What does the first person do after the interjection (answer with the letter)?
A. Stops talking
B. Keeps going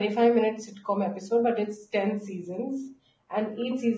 B